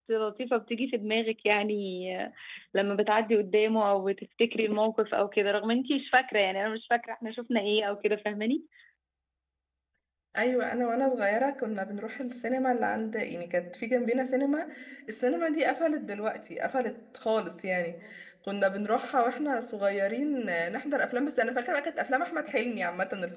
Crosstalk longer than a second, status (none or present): none